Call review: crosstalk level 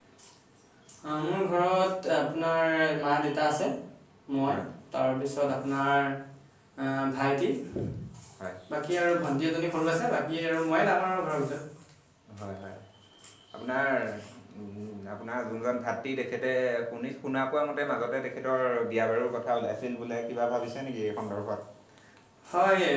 none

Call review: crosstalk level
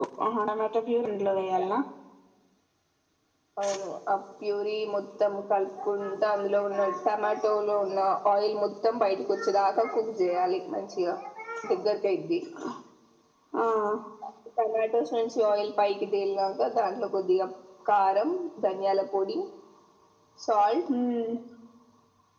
none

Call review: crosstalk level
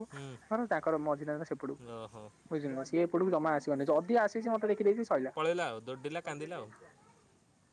none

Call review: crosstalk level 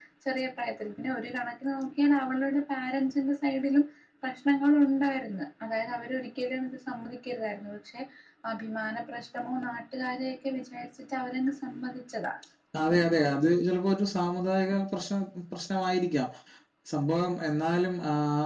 none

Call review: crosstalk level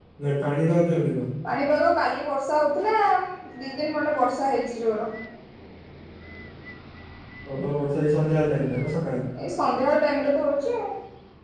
none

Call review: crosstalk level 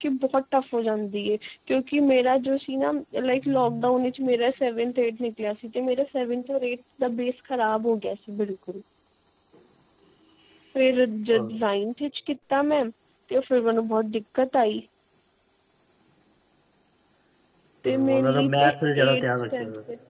present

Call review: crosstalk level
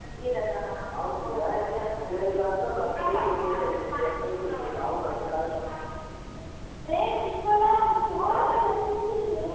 present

